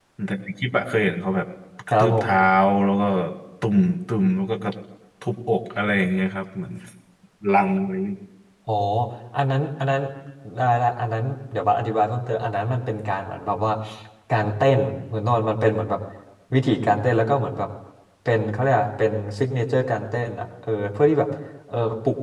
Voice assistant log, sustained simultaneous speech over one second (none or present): none